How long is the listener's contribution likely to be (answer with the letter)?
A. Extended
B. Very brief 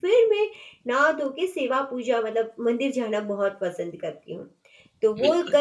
B